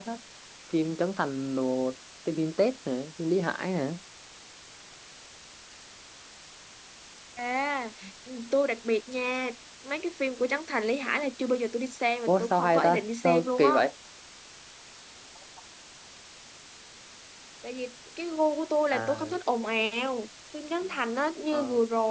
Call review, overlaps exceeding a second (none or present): present